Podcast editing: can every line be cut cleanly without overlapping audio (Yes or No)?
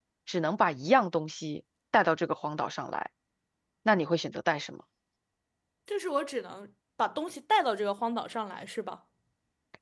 Yes